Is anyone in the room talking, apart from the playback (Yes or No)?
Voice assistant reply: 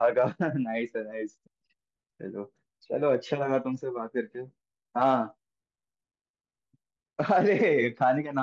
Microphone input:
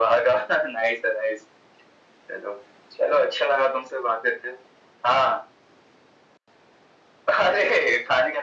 No